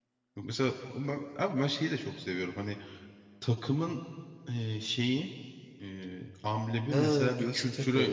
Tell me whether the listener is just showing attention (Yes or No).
No